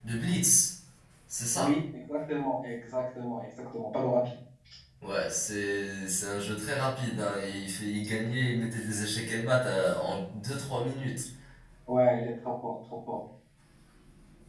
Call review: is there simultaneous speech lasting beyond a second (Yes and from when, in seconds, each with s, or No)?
No